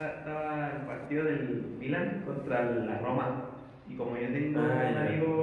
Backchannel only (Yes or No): Yes